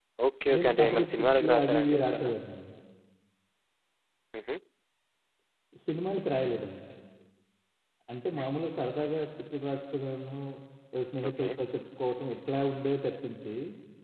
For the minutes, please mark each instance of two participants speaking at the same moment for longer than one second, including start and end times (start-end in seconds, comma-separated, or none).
0.5-2.3